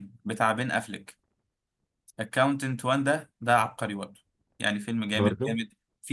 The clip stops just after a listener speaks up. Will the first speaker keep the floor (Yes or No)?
Yes